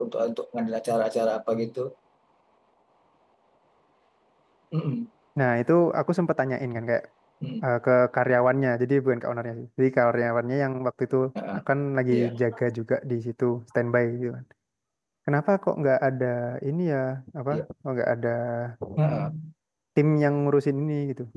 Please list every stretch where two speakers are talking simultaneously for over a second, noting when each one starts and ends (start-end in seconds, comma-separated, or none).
none